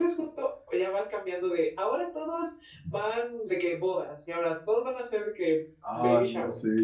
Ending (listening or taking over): taking over